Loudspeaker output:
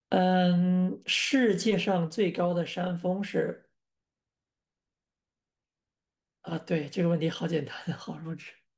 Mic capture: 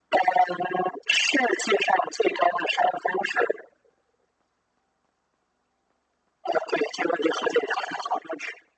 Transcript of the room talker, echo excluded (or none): none